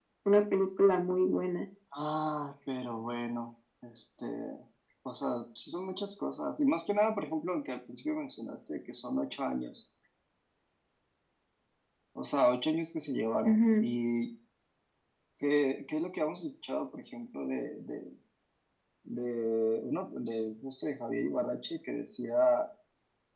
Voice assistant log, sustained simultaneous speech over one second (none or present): none